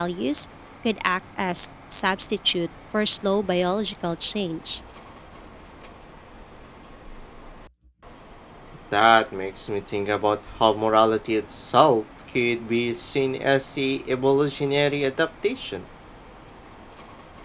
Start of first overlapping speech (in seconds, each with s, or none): none